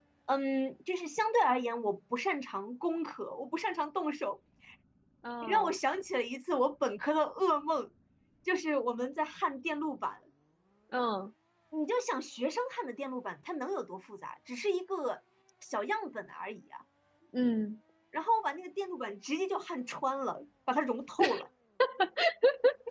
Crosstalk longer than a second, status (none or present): none